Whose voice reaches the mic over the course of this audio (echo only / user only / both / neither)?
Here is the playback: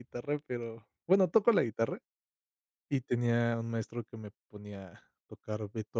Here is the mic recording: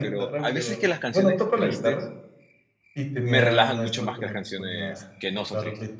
both